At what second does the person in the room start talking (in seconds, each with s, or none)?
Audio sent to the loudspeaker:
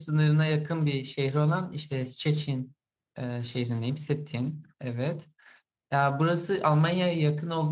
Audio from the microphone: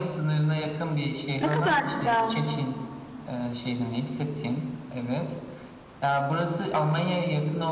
1.4 s